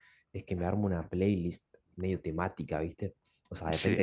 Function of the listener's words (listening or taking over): listening